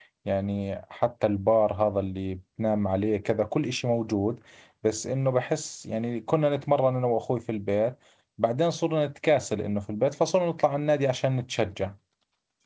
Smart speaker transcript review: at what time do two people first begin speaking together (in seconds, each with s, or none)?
none